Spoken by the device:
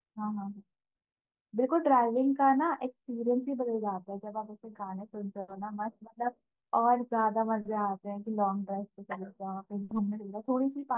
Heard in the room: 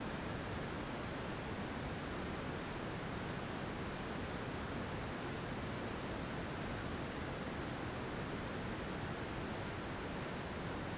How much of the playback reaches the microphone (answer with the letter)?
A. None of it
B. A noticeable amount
A